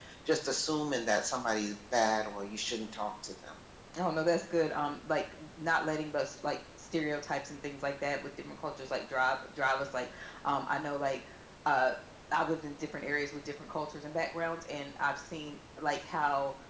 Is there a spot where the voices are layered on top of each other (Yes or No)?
No